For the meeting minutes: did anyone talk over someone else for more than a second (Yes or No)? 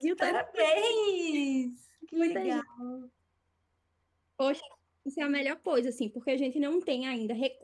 No